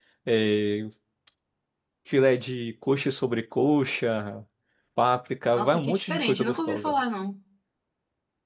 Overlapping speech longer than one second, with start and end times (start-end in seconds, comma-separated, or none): 5.5-6.9